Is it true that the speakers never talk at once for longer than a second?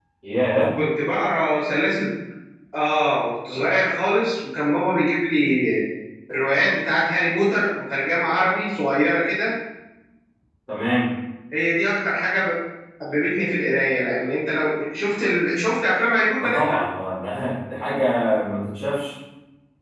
Yes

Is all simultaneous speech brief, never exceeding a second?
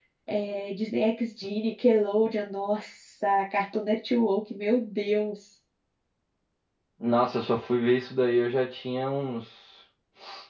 Yes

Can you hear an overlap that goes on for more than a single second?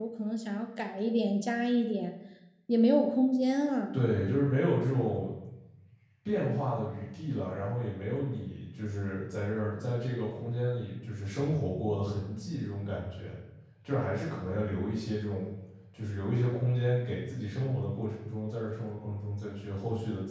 No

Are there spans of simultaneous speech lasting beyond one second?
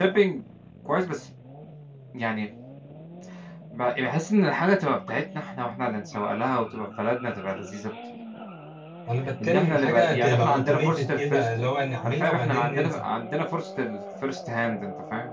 Yes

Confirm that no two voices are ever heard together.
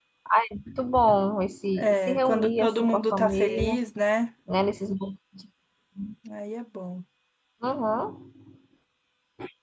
No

